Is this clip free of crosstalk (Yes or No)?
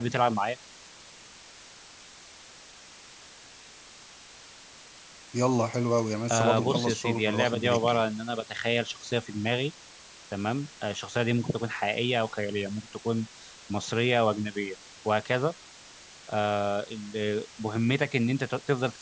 No